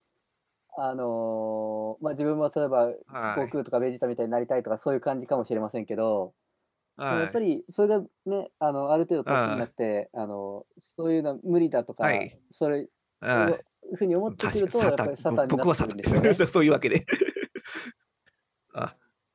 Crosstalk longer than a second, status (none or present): present